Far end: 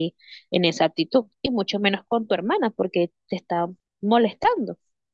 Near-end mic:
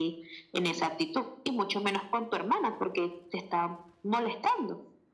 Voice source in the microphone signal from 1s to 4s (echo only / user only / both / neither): echo only